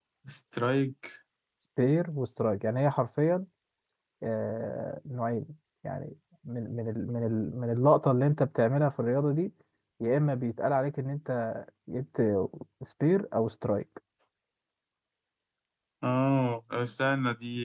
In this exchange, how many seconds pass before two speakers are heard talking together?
none

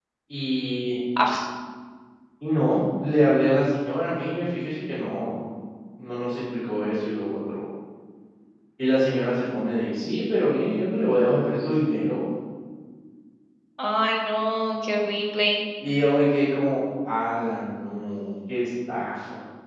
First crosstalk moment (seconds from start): none

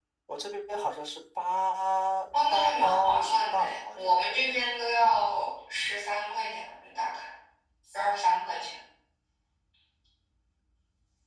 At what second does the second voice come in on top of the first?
2.3 s

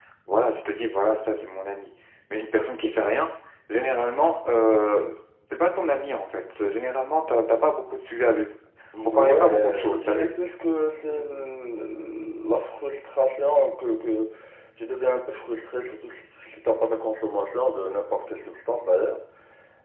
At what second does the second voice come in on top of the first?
9.1 s

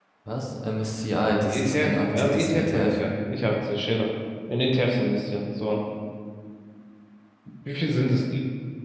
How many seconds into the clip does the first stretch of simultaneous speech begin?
1.4 s

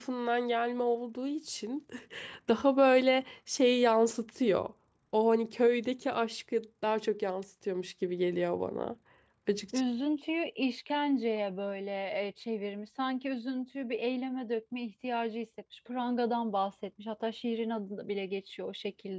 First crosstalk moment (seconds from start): none

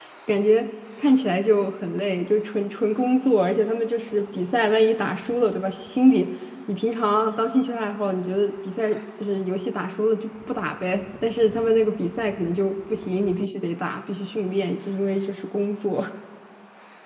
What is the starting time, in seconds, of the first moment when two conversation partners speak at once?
none

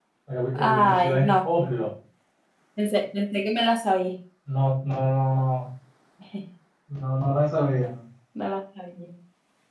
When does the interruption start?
0.5 s

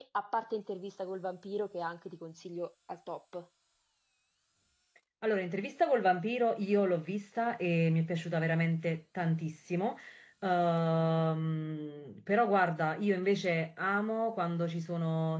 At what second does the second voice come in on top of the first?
none

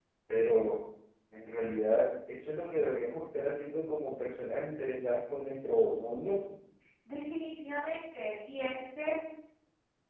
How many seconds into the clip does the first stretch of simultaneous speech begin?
none

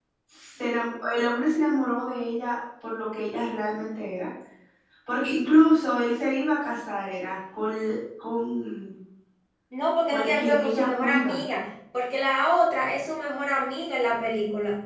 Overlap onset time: 10.1 s

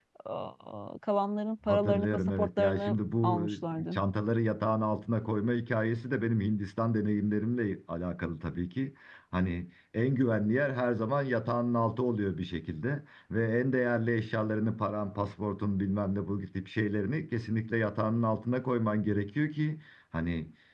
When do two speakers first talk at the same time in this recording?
1.6 s

